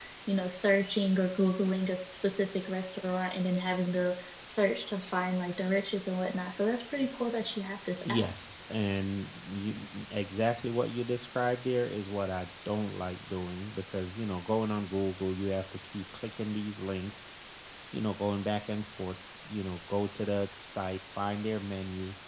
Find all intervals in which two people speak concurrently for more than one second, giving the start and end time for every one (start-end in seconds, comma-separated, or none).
none